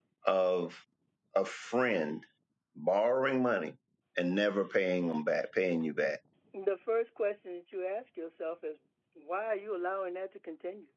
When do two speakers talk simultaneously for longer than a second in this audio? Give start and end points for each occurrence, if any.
none

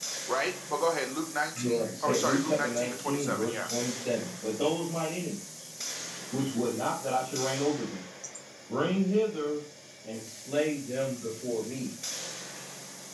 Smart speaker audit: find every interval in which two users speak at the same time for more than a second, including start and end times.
1.6-3.7

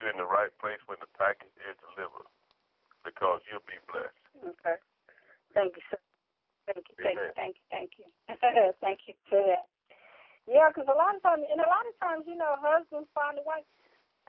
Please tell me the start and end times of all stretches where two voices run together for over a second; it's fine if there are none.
none

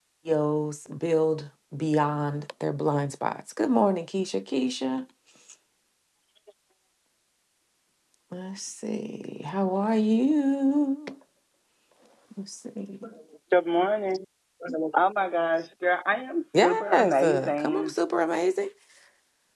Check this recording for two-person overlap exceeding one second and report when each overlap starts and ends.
16.5-17.9

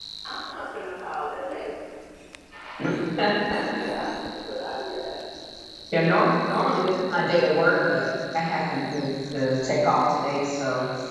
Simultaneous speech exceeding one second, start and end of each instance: none

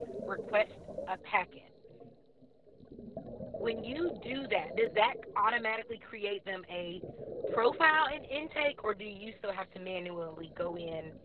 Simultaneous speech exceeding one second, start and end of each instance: none

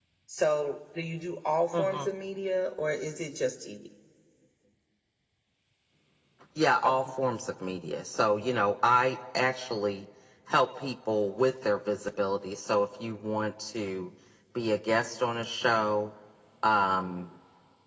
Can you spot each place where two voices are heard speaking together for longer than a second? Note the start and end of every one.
none

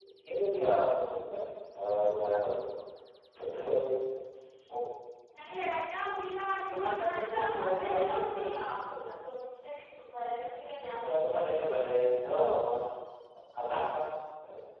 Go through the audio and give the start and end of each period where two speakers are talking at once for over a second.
6.7-8.5

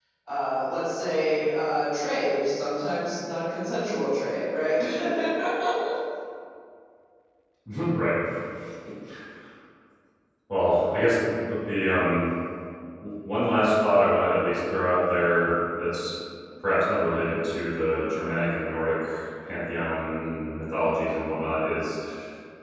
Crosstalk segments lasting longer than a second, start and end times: none

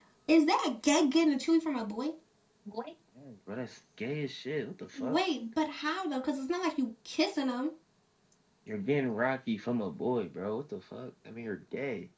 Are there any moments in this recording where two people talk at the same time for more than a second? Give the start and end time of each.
none

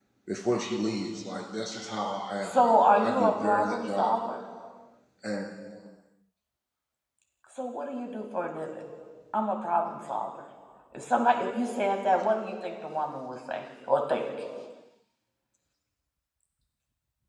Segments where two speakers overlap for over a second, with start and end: 2.4-4.1

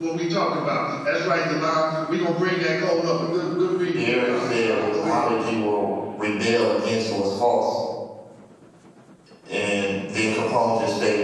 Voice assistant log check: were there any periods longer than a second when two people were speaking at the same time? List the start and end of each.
3.9-5.2

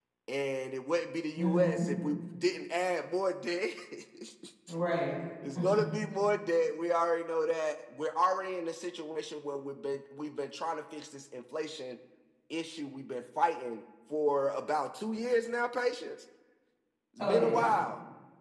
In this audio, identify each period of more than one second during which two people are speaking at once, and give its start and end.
none

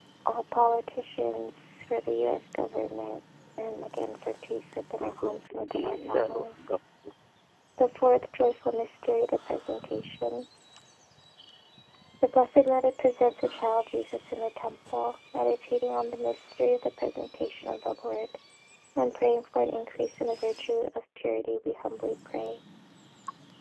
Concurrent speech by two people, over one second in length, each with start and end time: 5.0-6.8

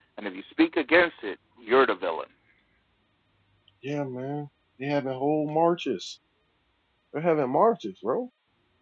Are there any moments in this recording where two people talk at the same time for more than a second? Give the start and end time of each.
none

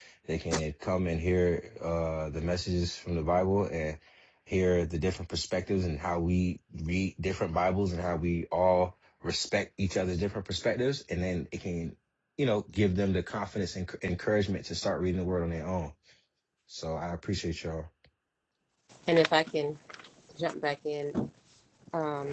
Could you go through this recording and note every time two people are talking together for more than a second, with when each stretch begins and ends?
none

